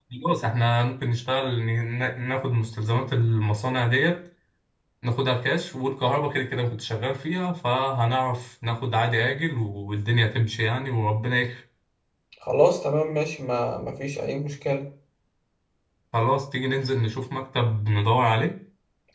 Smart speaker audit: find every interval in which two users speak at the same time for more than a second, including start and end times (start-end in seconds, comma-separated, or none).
none